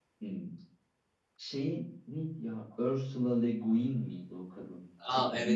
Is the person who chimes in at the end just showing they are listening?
No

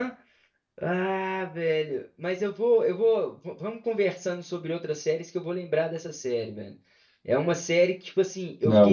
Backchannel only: Yes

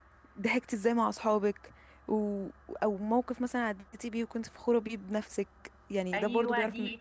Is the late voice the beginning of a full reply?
Yes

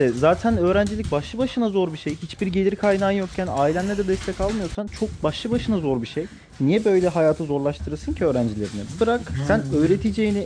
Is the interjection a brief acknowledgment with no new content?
Yes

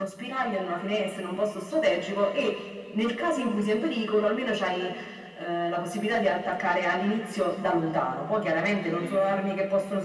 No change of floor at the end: Yes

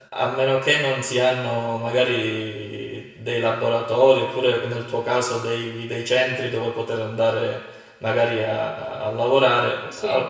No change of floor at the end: Yes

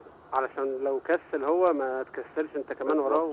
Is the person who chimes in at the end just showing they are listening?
No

